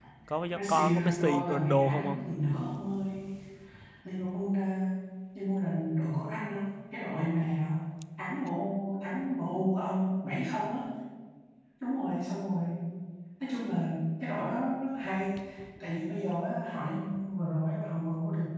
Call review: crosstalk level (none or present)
present